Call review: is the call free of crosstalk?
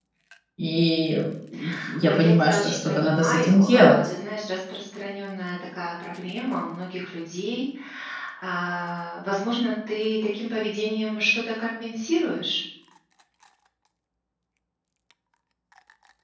No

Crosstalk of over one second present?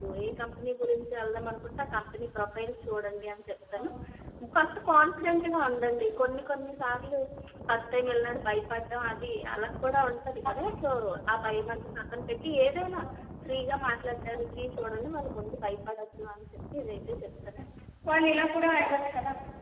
No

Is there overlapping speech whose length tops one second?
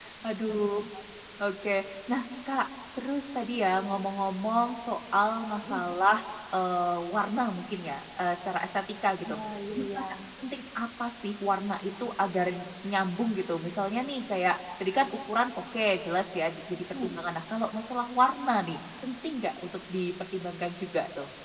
No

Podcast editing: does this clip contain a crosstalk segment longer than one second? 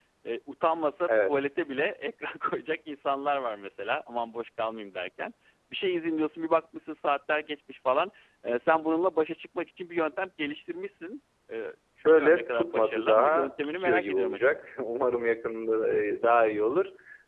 Yes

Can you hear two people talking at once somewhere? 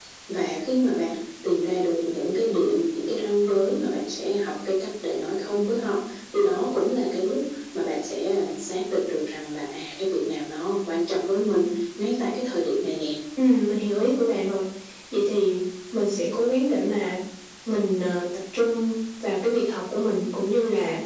No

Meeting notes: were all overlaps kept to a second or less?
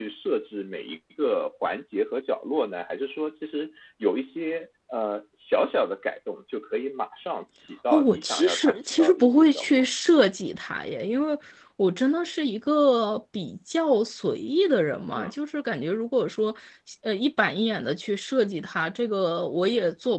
No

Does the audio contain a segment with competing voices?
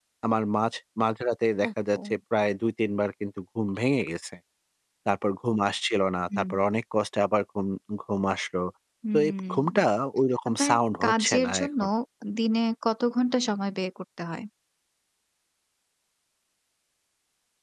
Yes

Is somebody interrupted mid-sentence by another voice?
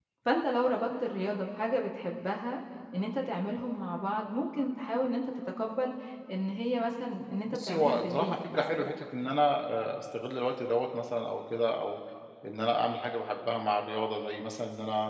Yes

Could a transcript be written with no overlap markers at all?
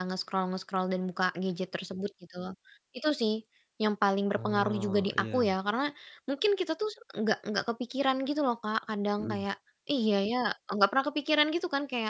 No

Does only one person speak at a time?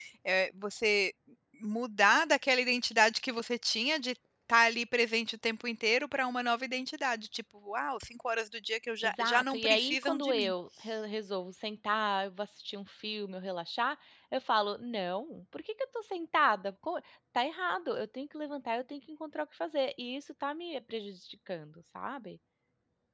No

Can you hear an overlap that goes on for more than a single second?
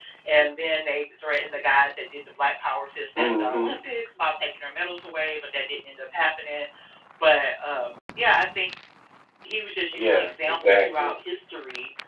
Yes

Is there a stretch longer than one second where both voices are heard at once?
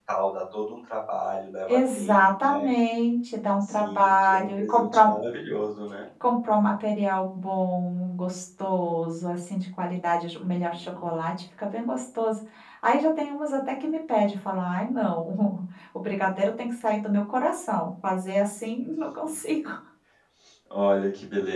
Yes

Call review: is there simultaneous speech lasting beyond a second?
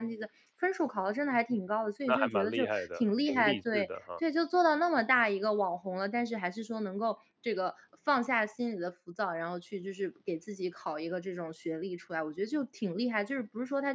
Yes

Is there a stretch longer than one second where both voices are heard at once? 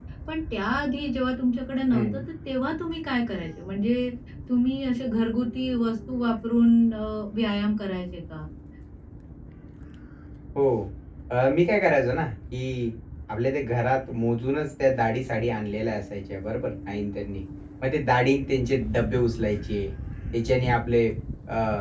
No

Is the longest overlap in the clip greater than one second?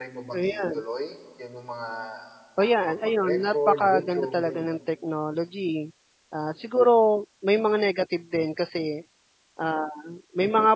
Yes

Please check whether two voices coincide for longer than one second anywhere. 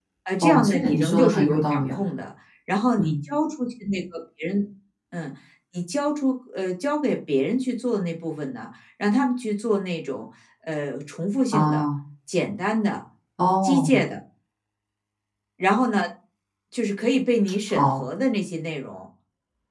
Yes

